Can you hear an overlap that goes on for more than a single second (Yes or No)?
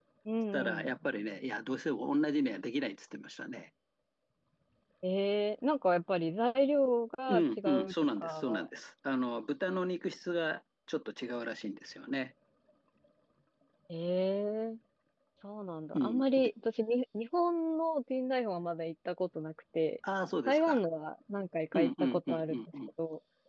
Yes